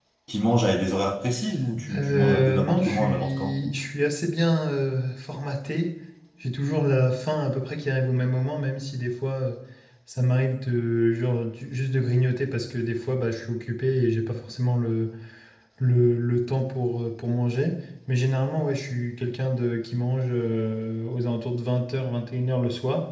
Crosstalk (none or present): present